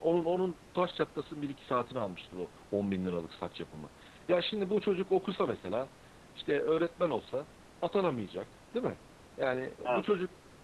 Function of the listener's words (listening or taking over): listening